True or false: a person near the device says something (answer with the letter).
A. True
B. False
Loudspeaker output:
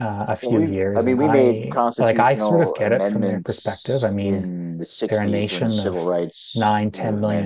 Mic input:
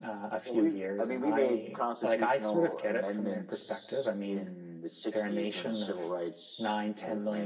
B